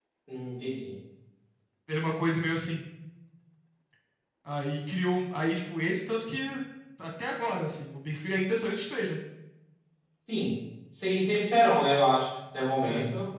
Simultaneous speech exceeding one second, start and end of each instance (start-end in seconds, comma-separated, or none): none